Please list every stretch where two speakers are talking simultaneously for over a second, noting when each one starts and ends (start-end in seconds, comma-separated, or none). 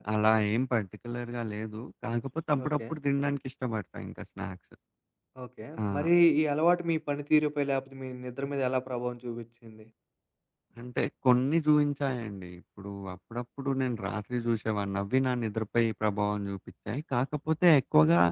none